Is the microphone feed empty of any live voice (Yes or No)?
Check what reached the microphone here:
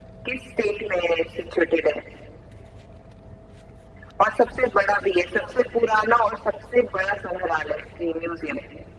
Yes